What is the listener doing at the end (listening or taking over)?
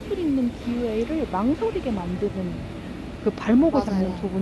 listening